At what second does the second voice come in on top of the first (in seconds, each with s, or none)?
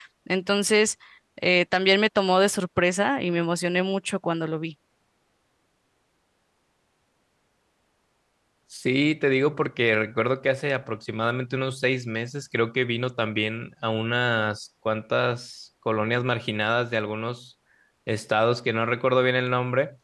none